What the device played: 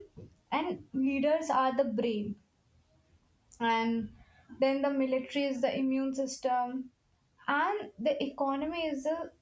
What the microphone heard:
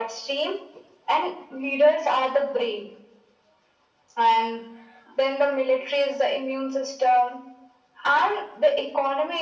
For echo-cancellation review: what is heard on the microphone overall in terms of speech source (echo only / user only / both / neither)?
echo only